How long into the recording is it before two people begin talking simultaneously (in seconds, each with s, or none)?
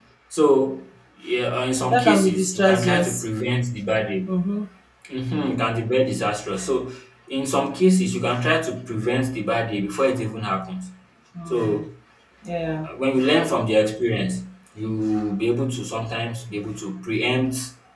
1.9 s